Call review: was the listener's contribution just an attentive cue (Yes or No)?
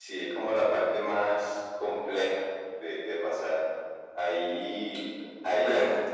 Yes